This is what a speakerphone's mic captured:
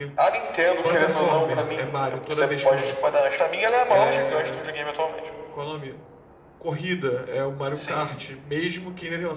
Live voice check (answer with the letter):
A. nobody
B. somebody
B